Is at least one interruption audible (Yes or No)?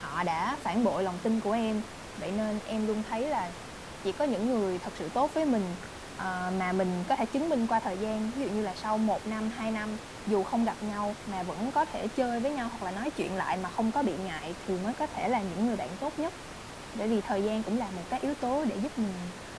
No